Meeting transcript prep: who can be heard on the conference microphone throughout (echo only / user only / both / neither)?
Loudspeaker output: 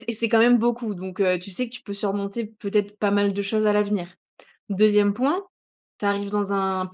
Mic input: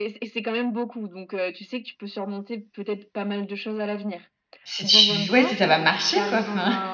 both